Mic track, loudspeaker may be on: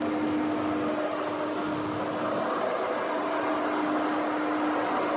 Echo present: No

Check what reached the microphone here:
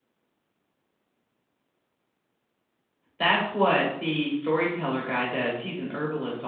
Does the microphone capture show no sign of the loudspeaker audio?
Yes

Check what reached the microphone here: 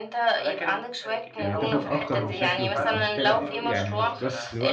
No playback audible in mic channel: No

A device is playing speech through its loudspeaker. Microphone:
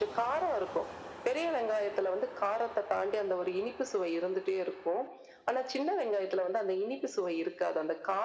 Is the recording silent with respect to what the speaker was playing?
No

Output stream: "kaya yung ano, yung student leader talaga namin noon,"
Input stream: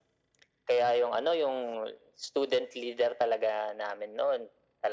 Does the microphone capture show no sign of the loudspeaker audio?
No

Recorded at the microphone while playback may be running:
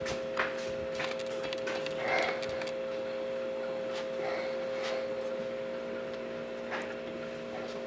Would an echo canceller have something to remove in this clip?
No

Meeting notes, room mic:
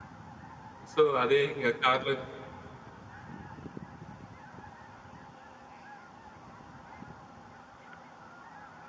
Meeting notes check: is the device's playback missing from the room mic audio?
Yes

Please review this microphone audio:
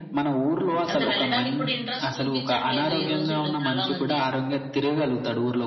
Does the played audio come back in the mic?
Yes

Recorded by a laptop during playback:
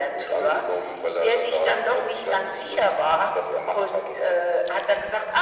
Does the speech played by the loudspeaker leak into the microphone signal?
Yes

